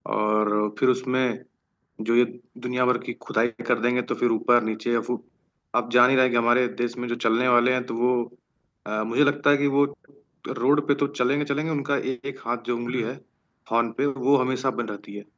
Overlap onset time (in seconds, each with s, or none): none